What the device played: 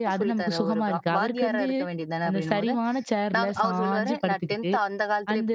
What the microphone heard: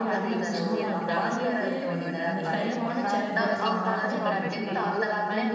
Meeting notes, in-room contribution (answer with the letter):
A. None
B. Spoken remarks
B